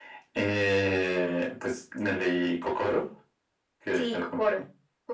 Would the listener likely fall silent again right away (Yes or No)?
No